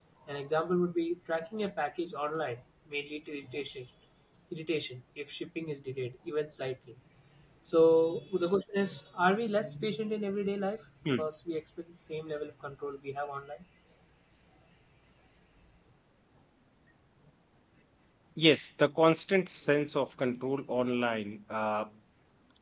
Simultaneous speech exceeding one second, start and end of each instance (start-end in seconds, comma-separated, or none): none